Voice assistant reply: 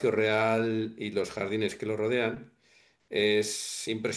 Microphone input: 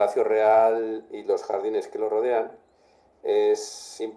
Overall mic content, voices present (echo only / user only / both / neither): echo only